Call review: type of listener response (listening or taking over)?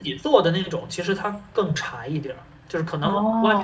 listening